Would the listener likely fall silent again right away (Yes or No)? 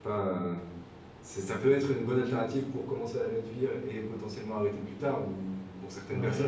Yes